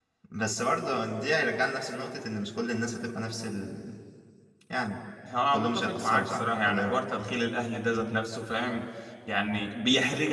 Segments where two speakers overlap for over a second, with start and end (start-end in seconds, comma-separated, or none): 5.5-7.0